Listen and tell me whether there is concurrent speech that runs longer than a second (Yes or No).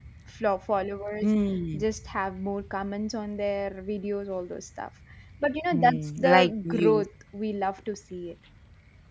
Yes